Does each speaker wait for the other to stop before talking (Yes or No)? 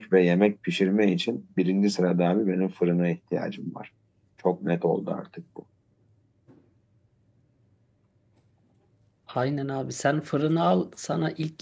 Yes